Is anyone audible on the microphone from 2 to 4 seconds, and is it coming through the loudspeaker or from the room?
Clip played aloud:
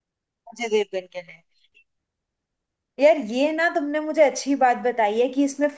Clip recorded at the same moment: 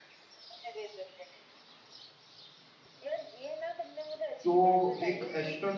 echo only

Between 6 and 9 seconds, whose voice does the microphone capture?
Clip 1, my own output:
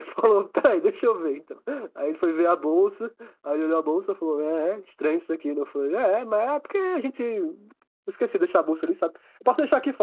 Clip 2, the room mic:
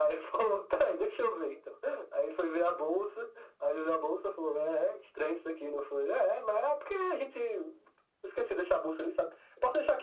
echo only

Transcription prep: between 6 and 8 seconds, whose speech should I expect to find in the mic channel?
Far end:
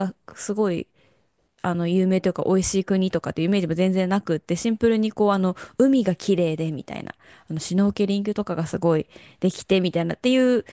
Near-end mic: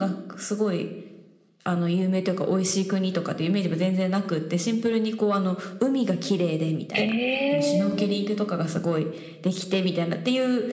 both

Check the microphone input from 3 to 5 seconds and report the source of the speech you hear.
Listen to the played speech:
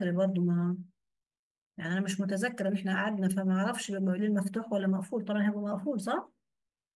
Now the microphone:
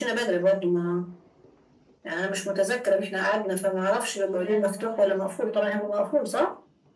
both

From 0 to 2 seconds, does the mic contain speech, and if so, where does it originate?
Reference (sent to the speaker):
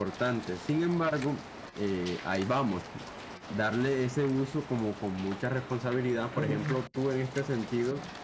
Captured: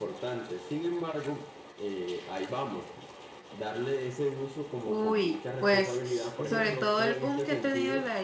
echo only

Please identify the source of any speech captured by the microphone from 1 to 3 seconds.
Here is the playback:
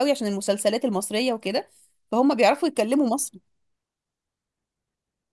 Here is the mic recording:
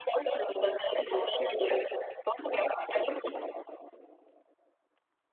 echo only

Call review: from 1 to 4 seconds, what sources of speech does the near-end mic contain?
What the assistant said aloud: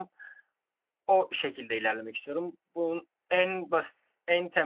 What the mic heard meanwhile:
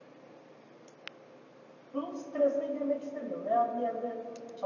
user only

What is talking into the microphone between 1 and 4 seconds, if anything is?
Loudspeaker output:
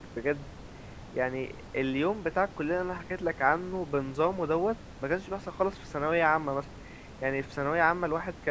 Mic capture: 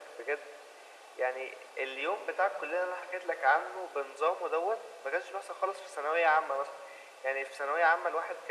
echo only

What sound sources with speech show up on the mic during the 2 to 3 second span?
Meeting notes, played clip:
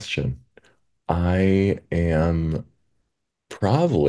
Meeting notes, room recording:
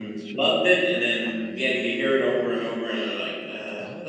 both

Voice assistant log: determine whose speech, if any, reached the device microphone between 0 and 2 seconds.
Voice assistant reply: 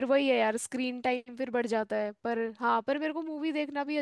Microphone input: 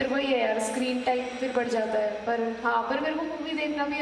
echo only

